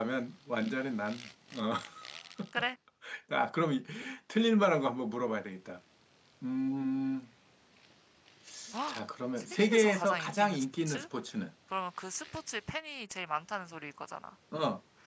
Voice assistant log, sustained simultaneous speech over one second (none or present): present